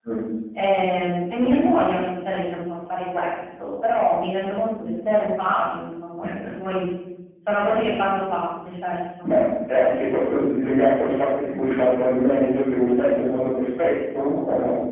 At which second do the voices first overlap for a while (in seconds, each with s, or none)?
none